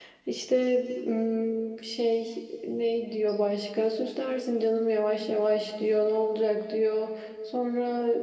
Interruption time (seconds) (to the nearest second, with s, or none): none